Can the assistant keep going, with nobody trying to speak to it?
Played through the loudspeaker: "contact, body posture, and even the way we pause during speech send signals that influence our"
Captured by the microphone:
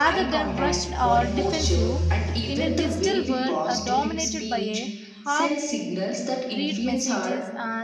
No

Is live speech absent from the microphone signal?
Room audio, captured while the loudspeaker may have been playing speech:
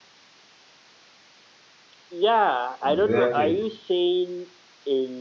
No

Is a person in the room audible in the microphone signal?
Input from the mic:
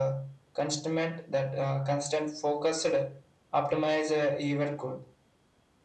No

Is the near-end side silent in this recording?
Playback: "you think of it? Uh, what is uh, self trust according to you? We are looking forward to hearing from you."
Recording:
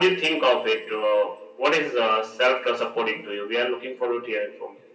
Yes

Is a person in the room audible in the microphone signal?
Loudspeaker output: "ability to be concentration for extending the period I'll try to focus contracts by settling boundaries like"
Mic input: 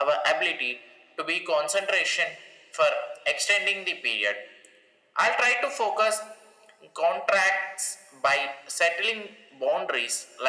No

